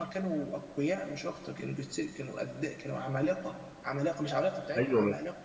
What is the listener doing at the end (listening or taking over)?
taking over